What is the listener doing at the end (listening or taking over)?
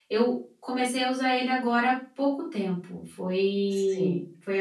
listening